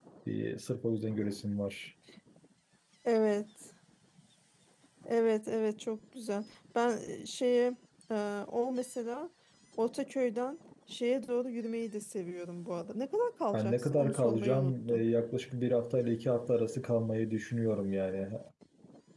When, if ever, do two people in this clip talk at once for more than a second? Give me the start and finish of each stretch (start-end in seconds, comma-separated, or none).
13.5-15.0